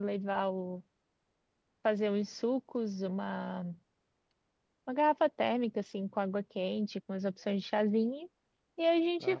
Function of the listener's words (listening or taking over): listening